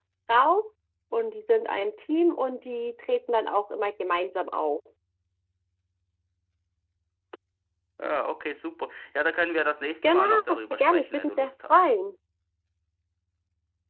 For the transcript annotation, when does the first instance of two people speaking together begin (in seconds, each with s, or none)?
10.0 s